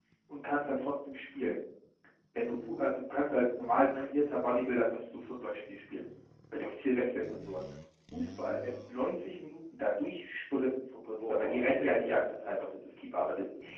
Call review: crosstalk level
present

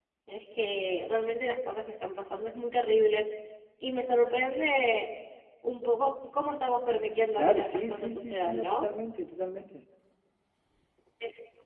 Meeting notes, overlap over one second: present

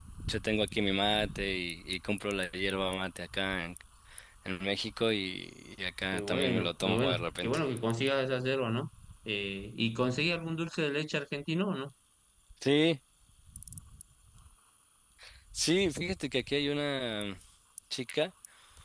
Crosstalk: present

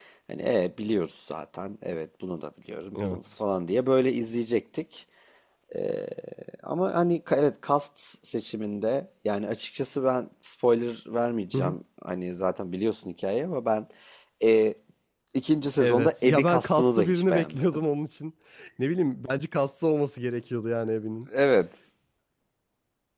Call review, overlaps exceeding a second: present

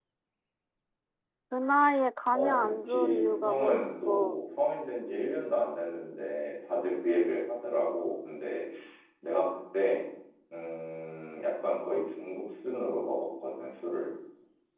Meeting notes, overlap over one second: present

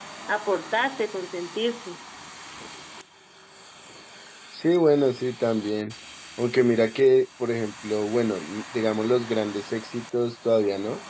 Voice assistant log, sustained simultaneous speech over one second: none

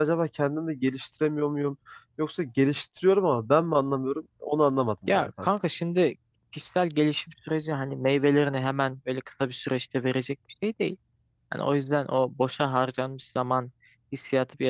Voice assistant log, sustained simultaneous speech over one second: none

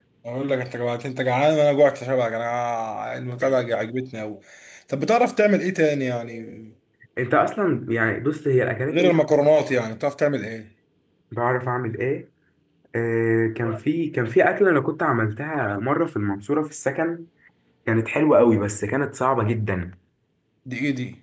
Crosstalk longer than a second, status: none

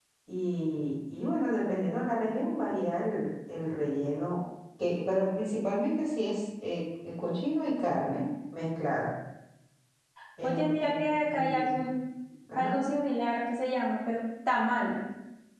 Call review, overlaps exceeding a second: present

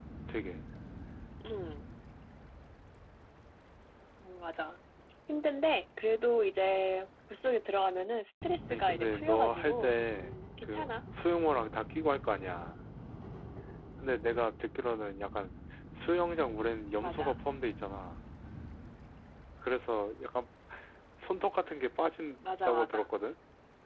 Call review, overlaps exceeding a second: present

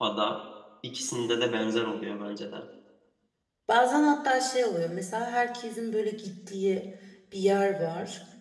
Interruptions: none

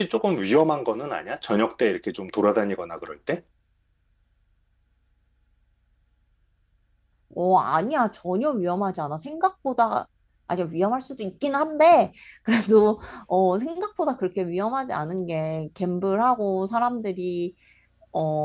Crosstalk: none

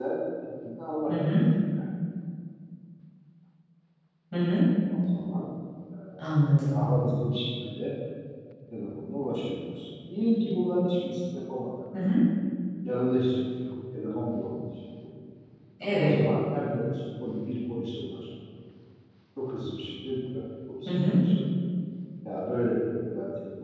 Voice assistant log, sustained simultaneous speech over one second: none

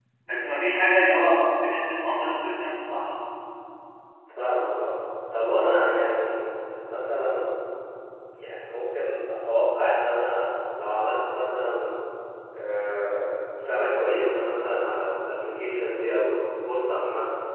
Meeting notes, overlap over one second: none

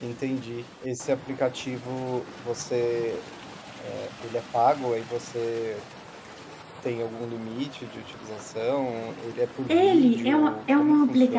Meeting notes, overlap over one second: present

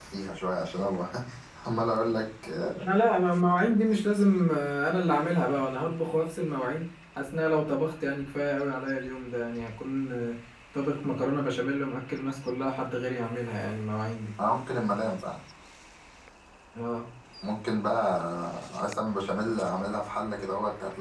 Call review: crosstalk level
none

